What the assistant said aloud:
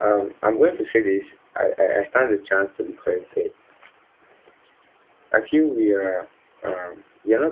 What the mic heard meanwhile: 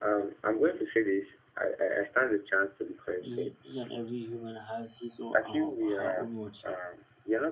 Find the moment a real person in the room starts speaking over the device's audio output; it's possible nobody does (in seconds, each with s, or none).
3.2 s